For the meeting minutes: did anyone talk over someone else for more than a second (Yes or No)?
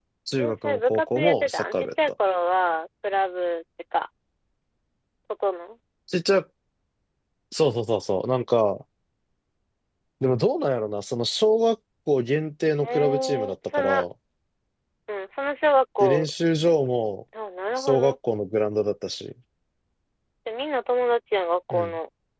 Yes